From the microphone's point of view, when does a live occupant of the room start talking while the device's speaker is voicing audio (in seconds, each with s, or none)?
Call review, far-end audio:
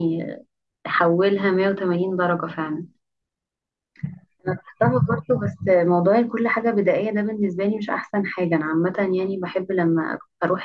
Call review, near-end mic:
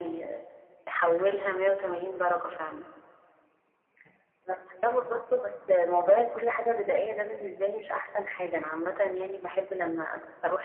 none